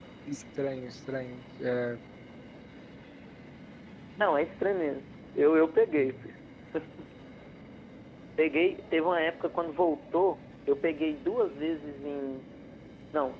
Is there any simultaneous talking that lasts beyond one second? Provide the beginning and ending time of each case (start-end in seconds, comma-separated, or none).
none